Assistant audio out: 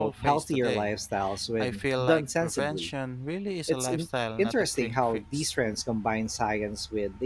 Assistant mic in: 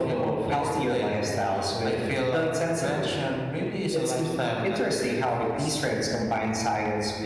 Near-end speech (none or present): none